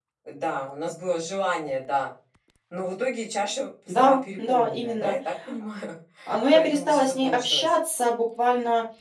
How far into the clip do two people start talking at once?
3.9 s

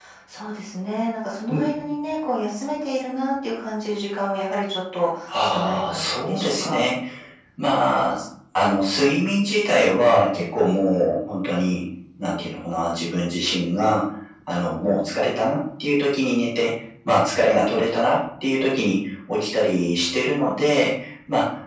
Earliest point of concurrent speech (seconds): 5.3 s

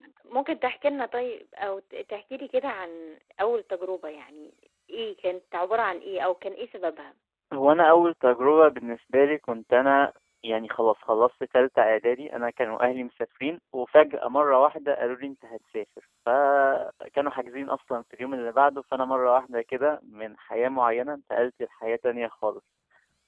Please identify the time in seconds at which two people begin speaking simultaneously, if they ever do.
none

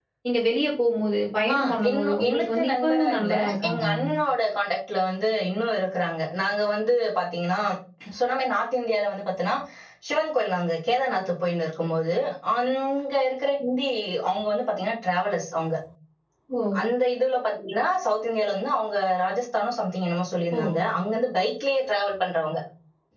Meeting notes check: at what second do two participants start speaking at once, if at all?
1.5 s

